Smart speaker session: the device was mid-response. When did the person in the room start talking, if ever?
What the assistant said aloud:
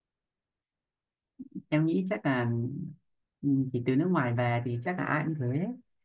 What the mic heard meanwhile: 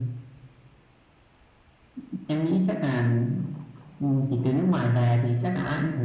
none

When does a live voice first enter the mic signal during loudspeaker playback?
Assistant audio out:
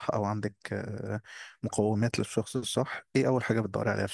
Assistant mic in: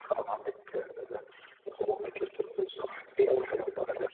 none

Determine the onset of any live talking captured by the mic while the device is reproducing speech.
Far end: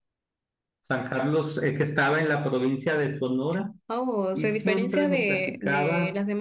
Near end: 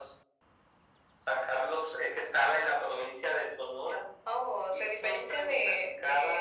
none

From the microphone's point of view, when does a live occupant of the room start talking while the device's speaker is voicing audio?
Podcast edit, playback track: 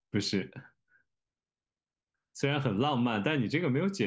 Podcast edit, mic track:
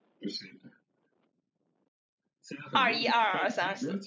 2.7 s

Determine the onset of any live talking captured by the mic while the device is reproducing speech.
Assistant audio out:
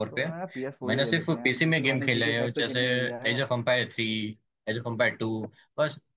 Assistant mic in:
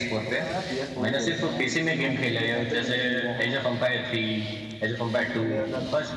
5.0 s

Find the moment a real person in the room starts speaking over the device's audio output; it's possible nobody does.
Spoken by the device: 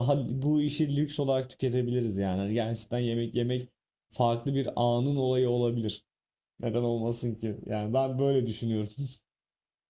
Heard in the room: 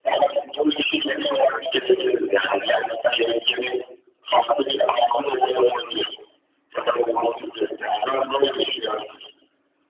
1.0 s

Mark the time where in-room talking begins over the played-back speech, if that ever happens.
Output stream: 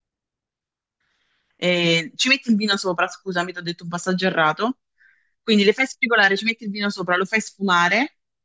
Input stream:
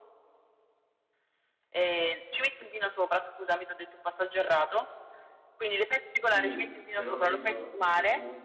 6.2 s

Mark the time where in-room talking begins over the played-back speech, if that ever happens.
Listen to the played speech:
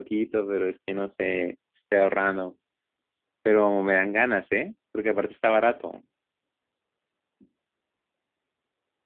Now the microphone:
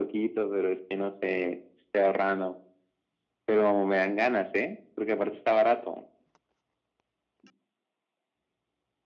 none

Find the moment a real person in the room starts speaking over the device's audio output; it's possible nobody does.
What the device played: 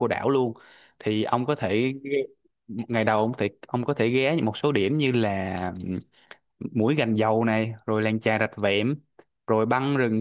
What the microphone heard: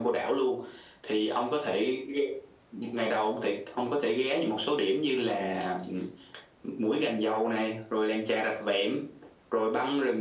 none

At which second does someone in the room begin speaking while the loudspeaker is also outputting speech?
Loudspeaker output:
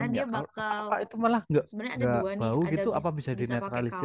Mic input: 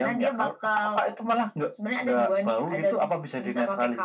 none

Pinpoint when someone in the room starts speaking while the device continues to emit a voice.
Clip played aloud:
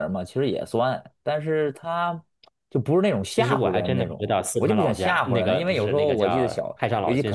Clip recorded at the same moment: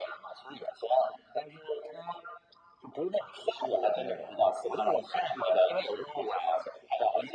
none

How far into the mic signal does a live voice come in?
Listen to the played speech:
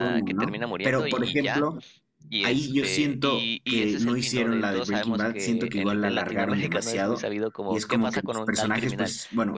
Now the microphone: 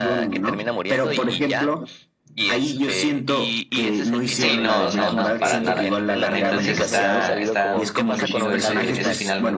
4.3 s

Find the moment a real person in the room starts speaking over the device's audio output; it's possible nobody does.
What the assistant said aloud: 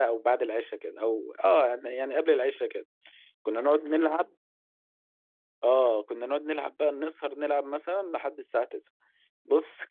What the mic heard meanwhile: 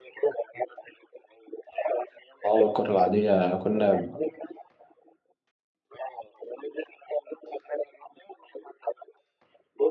2.4 s

